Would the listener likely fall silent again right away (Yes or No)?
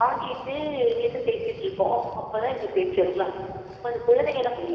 No